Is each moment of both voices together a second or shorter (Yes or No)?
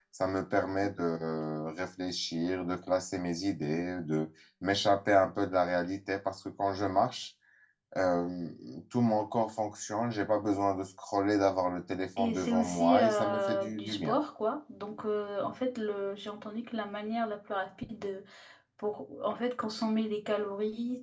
No